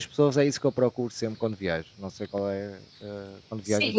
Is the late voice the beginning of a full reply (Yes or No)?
Yes